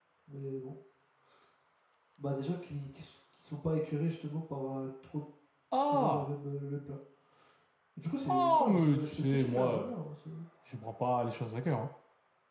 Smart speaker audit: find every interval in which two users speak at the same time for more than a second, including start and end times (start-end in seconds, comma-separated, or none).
8.3-9.9